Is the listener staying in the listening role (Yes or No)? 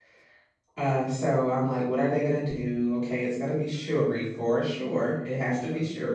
Yes